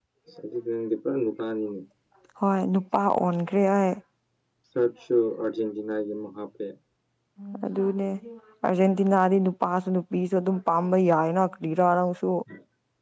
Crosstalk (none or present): none